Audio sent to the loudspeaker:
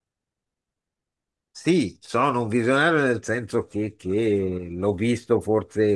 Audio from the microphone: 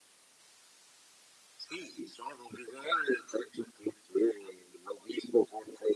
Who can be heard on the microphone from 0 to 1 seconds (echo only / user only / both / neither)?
neither